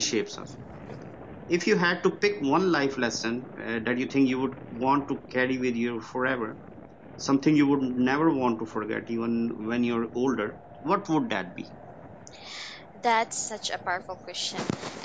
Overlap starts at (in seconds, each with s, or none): none